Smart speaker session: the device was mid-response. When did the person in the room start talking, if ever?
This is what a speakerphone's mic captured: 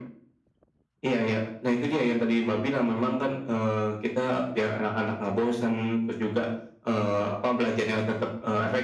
none

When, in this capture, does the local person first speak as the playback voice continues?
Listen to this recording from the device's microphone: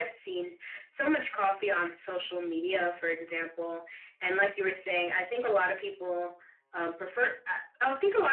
none

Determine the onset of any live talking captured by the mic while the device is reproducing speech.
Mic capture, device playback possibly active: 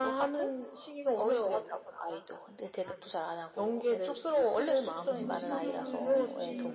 5.0 s

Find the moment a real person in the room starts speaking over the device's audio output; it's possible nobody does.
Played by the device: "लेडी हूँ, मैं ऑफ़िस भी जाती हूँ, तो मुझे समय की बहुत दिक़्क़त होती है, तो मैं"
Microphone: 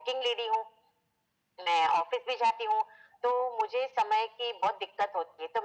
none

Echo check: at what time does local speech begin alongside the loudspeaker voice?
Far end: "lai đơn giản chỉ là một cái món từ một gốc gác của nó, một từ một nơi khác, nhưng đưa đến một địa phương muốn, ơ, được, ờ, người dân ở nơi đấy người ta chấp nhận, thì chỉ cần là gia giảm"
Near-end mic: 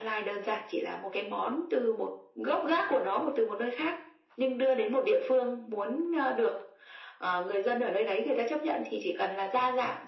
none

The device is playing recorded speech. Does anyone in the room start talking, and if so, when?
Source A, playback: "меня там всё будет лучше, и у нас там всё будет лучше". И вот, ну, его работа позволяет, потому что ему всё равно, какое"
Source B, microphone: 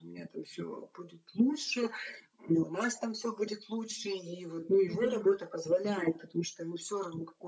4.9 s

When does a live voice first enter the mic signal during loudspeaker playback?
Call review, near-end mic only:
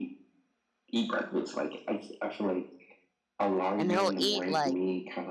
3.8 s

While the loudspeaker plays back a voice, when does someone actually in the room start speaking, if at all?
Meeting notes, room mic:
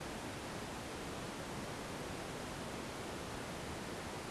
none

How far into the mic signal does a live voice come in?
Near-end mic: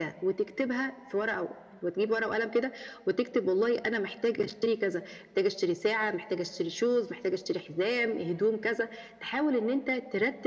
none

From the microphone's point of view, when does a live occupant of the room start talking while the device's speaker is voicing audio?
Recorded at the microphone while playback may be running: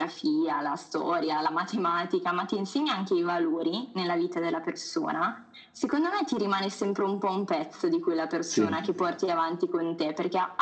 8.5 s

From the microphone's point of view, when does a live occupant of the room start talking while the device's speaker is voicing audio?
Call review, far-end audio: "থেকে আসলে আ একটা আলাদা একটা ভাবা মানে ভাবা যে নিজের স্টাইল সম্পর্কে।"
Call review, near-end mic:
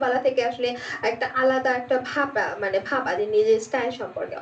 none

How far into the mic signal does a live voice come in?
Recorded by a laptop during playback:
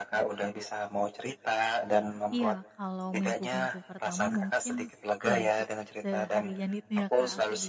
2.3 s

